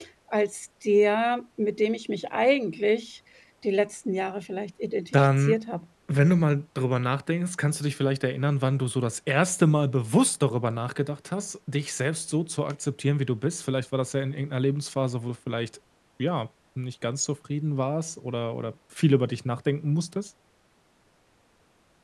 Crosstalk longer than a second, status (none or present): none